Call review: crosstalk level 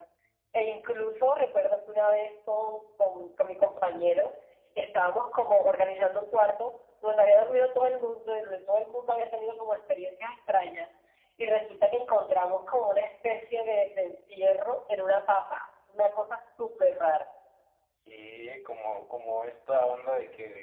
none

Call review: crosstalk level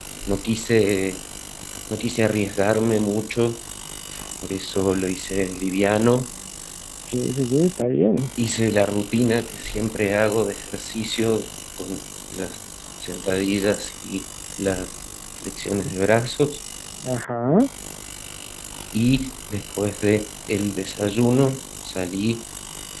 none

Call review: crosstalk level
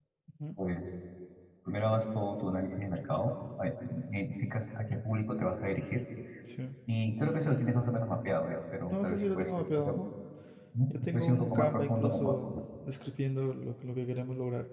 present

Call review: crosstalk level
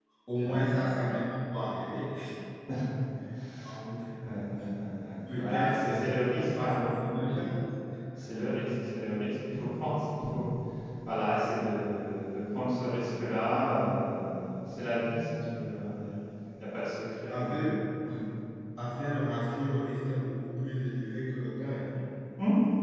present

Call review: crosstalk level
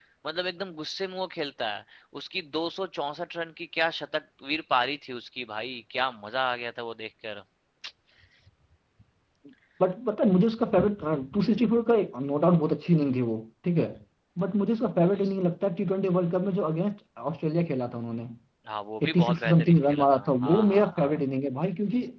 present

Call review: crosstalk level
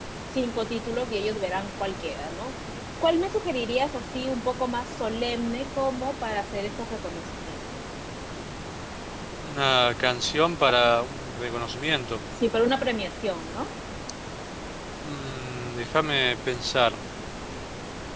none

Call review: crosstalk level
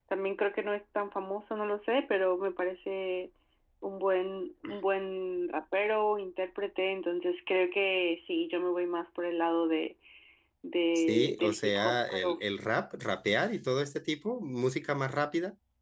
present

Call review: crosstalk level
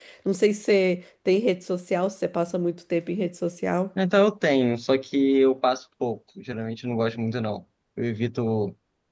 none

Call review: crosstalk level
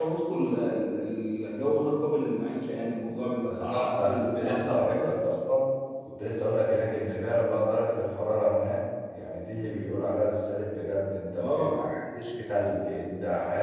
present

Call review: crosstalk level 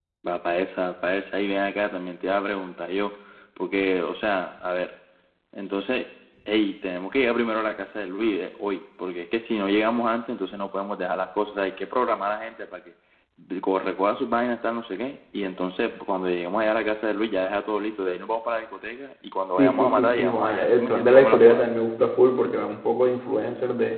present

